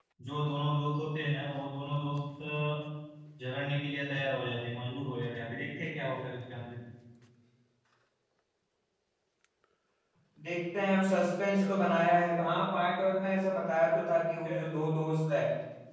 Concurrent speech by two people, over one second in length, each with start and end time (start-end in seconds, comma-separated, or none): none